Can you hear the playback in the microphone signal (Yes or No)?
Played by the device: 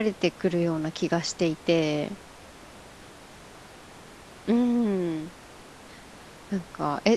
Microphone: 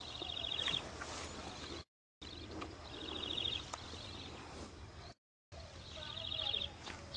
No